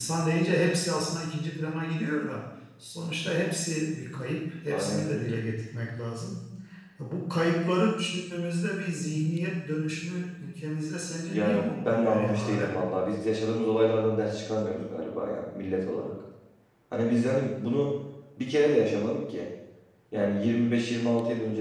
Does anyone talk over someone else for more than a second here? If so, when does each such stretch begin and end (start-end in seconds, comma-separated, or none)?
11.3-12.8